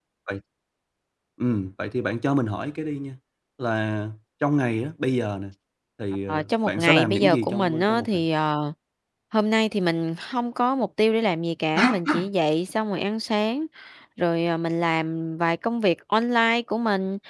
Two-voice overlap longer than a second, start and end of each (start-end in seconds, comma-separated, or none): 6.3-8.2